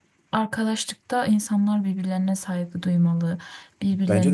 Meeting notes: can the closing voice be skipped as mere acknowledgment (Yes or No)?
No